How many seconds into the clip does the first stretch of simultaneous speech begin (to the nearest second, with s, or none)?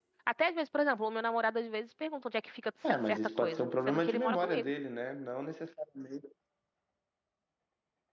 3 s